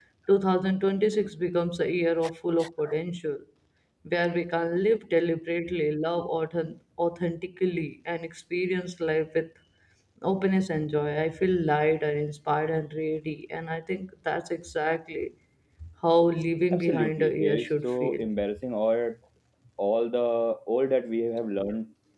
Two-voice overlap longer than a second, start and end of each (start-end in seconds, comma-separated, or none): 16.7-18.3